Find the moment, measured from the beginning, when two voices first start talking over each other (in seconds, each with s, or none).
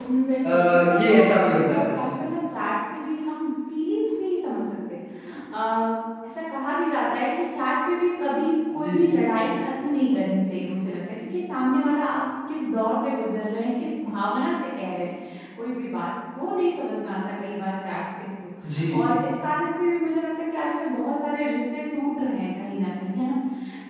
0.5 s